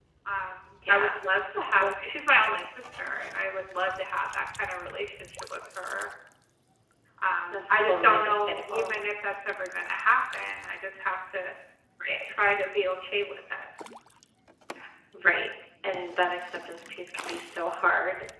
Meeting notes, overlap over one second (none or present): present